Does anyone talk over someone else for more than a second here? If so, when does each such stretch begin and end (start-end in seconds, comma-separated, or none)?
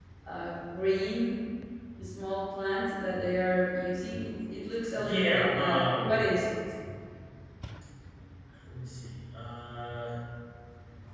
5.0-6.3